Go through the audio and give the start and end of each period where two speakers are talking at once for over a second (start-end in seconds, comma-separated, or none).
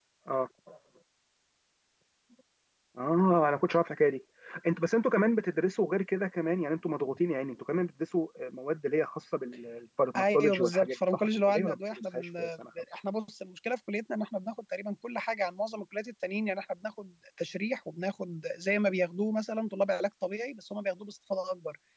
10.2-12.5